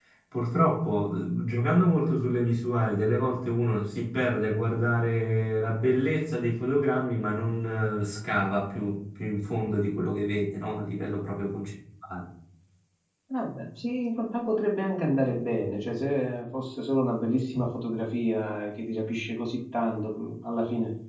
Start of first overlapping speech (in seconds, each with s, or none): none